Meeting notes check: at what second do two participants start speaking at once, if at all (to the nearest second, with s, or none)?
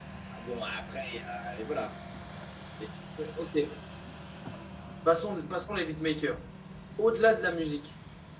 none